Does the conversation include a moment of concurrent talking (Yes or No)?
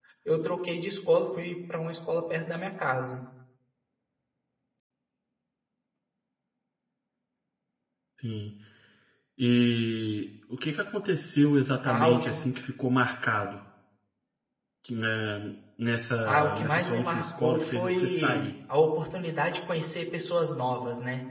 Yes